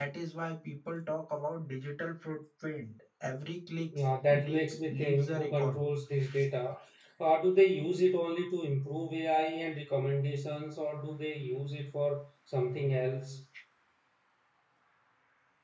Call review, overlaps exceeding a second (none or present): present